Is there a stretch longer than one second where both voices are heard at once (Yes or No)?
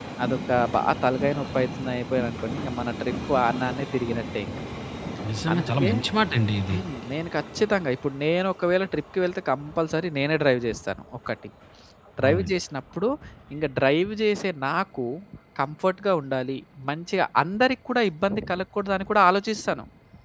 No